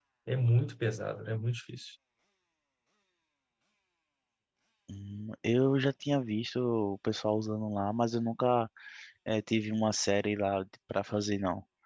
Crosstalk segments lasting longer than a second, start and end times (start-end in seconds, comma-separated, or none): none